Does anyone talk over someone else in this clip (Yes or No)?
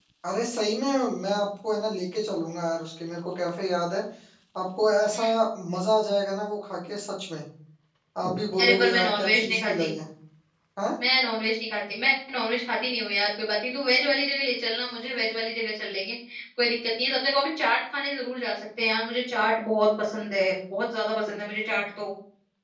Yes